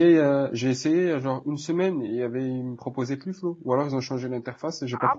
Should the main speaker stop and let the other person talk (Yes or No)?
Yes